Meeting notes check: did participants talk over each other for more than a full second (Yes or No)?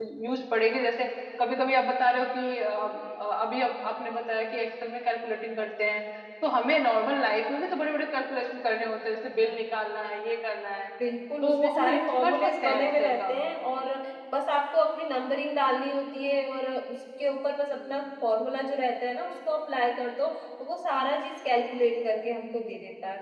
Yes